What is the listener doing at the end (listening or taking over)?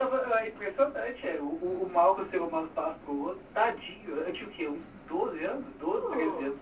listening